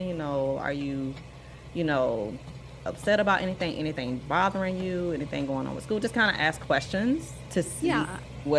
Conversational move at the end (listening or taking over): listening